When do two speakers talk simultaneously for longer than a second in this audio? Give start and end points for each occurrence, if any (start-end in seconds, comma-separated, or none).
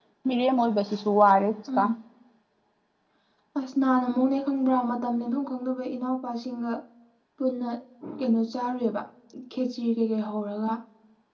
none